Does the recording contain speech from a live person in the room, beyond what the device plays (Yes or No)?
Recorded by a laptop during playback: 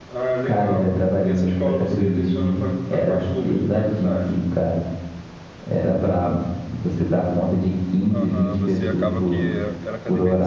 Yes